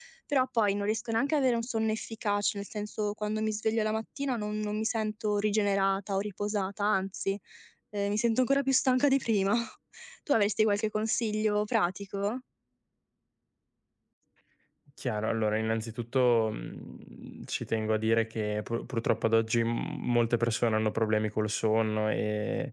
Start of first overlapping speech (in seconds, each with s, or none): none